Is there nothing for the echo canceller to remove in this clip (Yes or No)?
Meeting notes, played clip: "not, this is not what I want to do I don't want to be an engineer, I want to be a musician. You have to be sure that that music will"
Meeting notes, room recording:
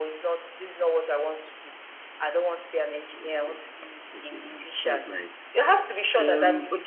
No